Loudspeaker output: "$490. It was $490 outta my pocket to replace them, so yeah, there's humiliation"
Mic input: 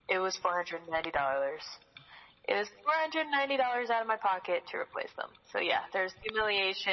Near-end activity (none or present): none